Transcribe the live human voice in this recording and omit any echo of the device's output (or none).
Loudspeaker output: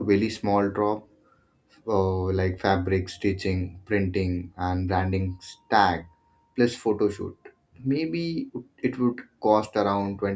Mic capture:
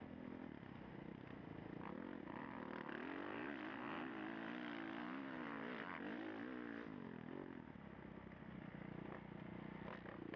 none